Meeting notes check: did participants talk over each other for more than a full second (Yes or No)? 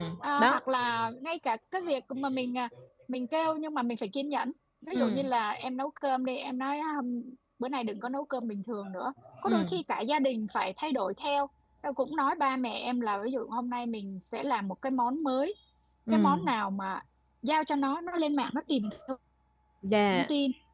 No